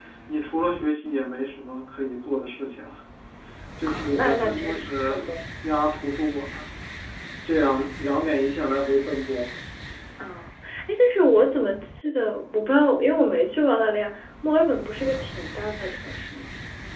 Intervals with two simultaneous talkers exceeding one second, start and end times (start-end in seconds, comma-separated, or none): 3.9-5.2